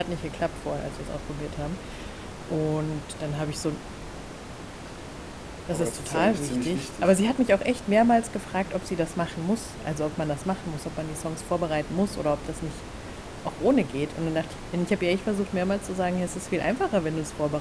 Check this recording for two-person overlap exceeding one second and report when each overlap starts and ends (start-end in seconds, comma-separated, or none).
5.7-7.2